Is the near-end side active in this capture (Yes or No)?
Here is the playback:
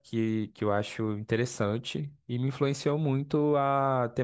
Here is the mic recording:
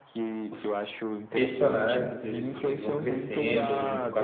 Yes